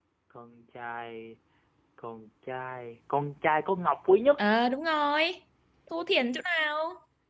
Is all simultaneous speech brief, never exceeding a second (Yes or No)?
Yes